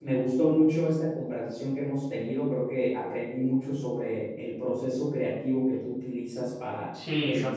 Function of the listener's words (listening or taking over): taking over